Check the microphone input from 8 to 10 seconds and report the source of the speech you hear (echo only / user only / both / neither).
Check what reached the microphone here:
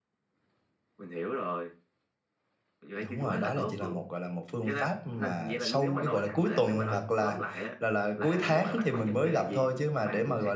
both